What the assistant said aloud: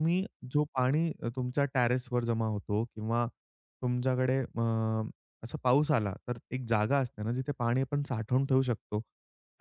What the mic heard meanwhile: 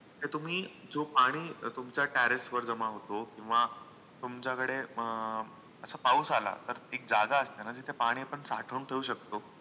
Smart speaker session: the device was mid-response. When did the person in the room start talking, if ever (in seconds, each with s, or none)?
none